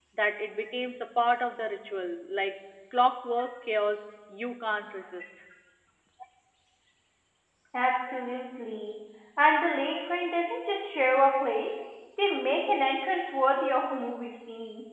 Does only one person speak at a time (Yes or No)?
Yes